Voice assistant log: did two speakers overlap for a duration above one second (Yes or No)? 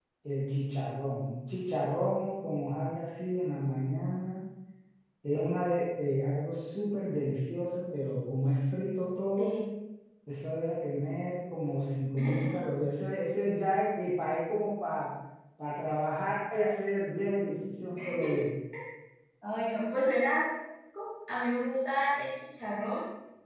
No